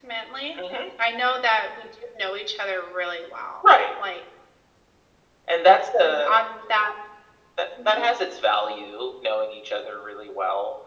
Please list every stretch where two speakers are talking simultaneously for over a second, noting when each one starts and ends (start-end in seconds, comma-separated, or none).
none